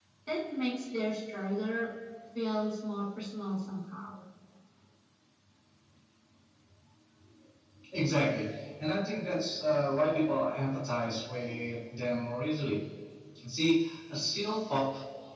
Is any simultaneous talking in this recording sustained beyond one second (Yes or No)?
No